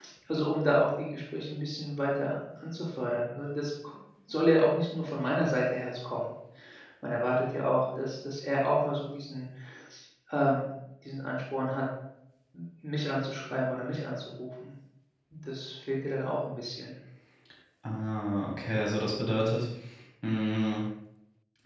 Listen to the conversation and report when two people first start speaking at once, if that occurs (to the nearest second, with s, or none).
none